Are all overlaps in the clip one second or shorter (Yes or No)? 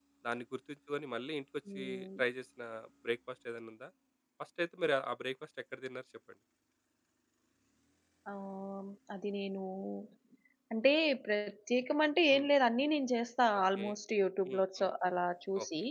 Yes